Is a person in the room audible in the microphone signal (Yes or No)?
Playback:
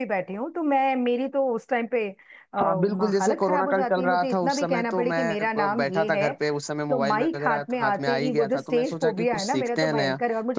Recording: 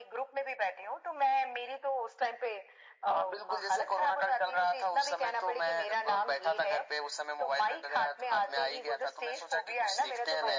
No